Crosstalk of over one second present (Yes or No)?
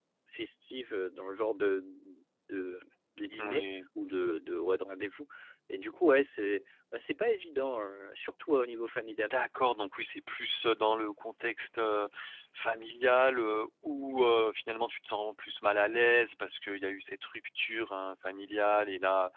No